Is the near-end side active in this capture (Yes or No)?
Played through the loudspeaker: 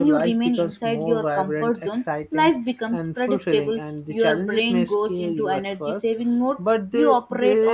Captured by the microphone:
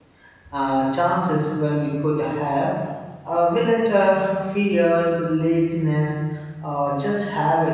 Yes